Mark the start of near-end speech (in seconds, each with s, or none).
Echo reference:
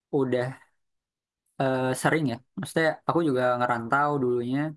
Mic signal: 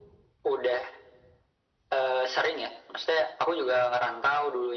none